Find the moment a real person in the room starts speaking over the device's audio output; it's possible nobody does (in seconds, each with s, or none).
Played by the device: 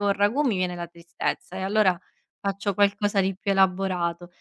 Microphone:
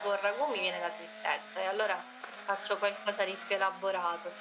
none